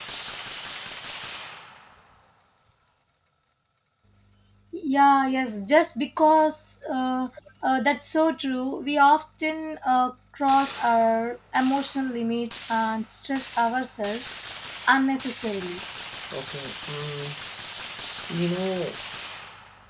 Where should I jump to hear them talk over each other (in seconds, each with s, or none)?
none